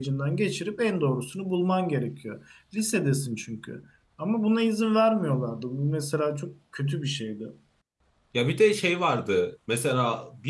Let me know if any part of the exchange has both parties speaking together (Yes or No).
No